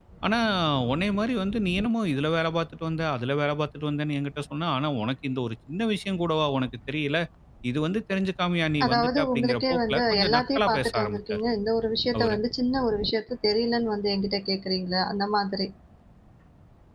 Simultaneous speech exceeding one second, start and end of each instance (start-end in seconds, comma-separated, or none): 8.8-11.4